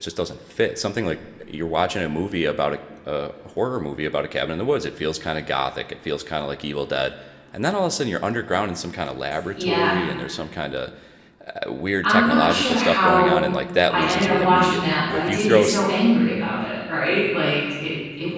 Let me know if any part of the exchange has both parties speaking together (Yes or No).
Yes